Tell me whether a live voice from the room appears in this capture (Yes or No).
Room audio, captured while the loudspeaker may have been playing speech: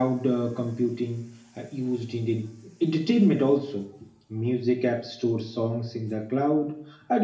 No